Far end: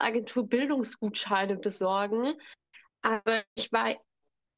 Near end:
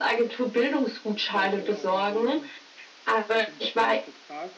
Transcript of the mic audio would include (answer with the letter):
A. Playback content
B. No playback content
A